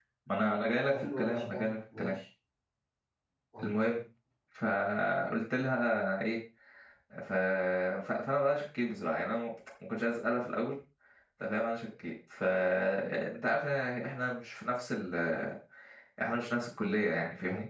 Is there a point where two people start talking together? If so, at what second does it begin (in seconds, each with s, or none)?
0.9 s